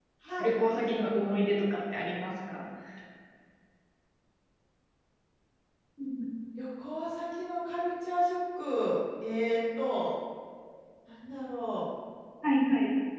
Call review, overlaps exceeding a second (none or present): none